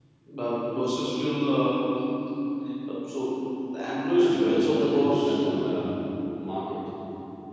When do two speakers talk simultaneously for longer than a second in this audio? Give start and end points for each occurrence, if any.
4.1-5.4

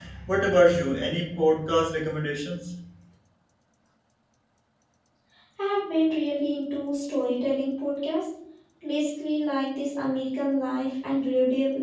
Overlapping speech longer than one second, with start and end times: none

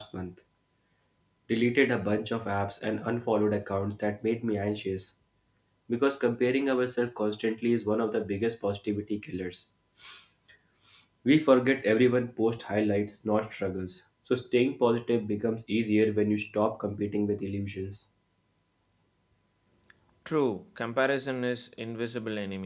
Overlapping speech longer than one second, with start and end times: none

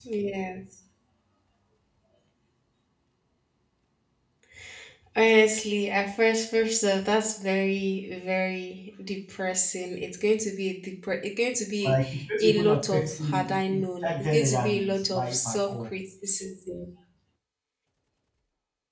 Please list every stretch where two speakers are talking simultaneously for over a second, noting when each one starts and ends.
11.8-15.9

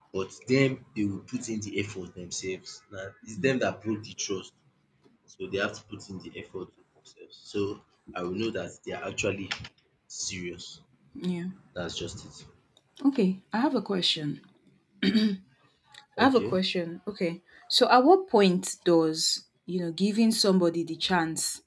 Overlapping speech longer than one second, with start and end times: none

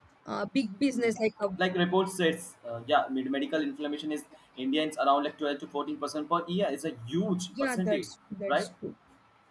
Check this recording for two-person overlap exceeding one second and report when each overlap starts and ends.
none

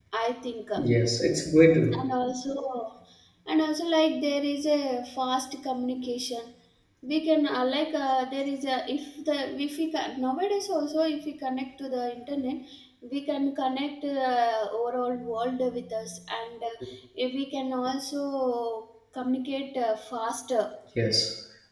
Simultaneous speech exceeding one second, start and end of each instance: none

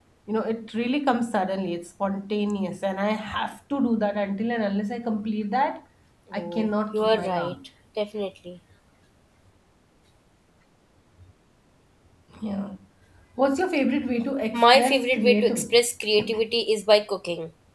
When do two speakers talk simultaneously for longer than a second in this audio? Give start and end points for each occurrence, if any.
6.3-7.5, 14.5-15.8

